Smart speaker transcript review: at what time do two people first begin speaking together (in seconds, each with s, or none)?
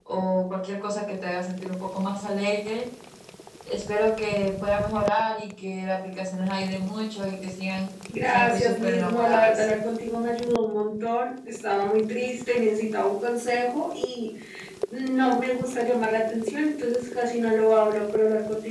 8.1 s